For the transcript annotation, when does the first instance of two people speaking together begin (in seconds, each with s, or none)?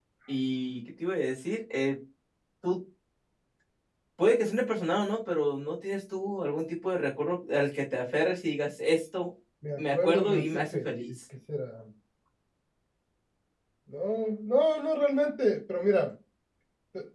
9.8 s